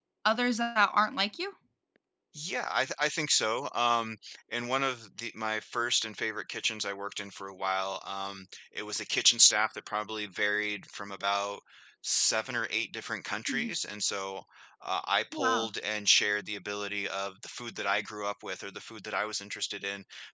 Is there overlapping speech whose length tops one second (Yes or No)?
No